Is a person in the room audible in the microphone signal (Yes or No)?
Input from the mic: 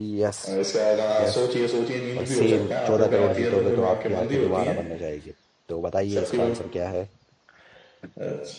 Yes